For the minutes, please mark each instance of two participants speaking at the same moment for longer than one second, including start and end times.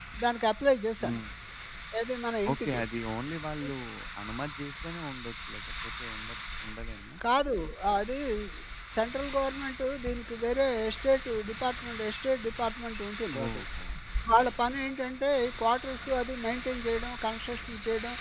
none

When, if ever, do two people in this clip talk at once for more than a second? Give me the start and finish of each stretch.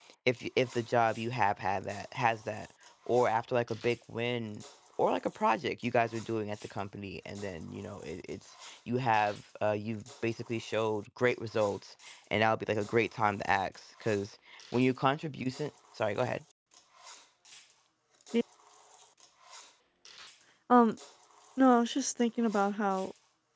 none

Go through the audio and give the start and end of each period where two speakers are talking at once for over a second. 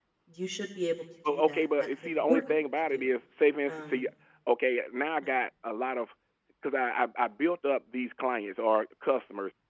1.3-3.2

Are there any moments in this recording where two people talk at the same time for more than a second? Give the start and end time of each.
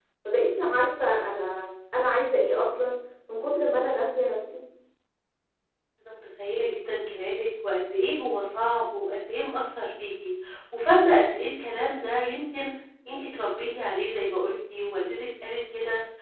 none

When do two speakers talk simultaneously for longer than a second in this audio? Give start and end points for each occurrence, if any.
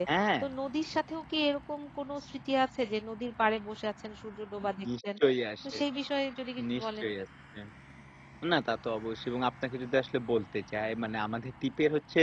none

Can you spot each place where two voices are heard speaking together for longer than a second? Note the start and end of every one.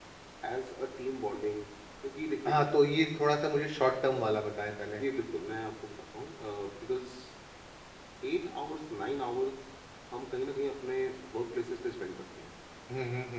none

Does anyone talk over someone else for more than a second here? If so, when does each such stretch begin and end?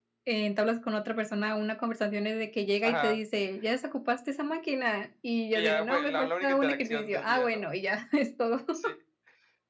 5.5-7.6

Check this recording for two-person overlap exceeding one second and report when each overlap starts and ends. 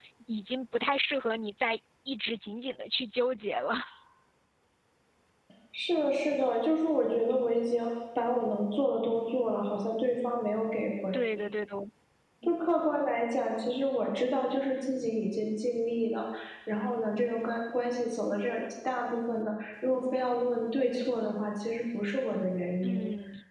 none

